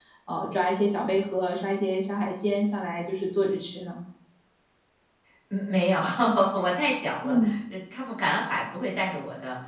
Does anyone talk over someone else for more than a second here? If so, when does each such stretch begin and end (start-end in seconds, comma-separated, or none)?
none